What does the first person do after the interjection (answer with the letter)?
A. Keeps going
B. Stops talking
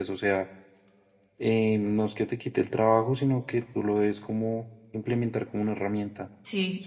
B